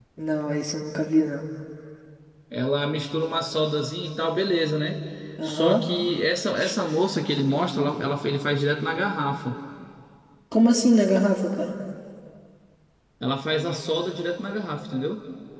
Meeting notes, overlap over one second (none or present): none